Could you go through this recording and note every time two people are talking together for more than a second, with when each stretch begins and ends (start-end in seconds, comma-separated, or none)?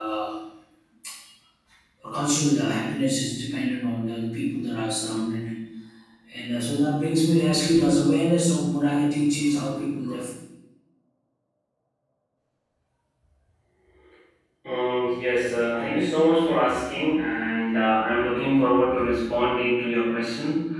none